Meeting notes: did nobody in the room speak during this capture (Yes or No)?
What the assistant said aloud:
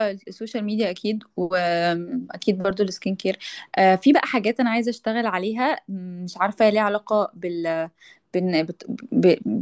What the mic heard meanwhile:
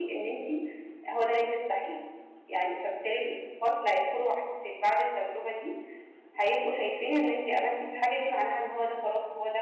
No